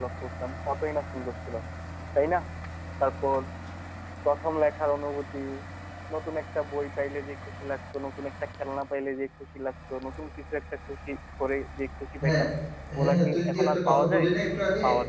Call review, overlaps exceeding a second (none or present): present